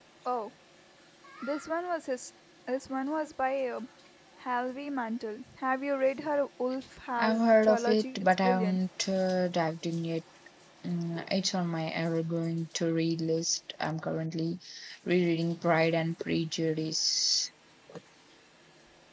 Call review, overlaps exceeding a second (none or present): present